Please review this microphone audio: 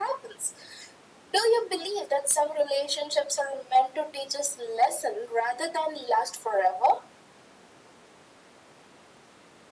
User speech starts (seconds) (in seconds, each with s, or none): none